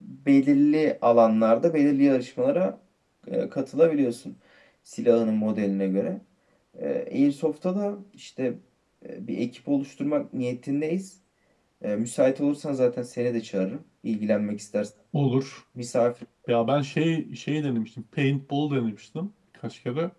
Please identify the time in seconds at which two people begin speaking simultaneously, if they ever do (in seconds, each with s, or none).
none